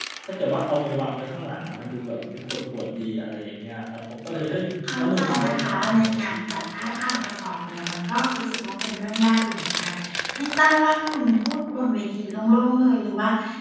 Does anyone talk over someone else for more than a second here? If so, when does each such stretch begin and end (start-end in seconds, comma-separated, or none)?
5.0-7.1